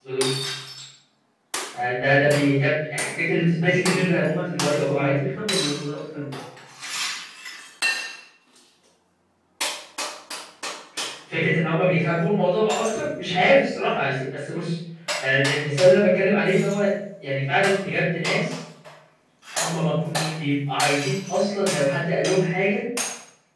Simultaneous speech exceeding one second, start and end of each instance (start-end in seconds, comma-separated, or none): 3.6-5.1